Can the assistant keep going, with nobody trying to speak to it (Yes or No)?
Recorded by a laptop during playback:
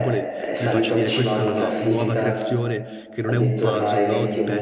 No